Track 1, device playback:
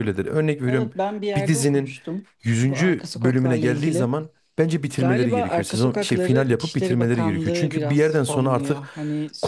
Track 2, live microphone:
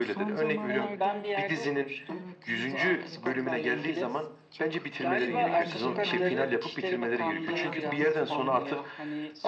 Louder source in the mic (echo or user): echo